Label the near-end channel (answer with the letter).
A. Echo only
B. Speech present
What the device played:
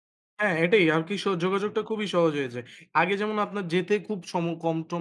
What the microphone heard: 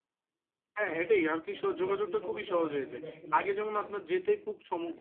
B